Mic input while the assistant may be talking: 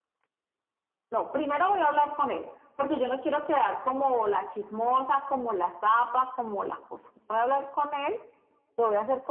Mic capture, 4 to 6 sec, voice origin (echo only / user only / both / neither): echo only